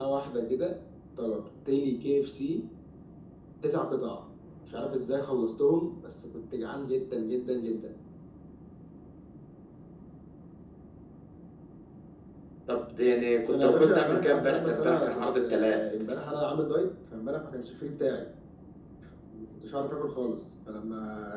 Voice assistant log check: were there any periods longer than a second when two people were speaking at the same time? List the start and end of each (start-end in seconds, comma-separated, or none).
13.5-15.8